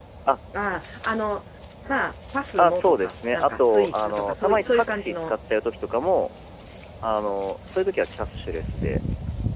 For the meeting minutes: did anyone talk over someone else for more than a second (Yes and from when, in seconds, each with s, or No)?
Yes, from 2.6 s